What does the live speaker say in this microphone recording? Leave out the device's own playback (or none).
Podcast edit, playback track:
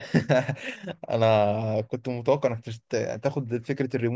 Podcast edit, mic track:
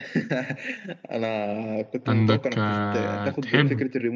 عندك آه، تحب